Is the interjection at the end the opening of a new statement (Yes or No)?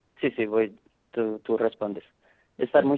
No